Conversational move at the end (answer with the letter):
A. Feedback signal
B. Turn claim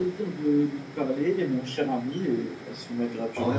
B